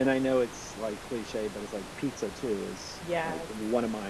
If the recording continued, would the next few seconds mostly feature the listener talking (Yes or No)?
No